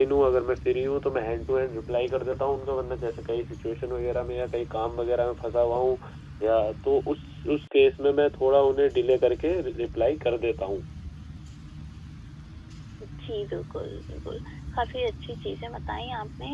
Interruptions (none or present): none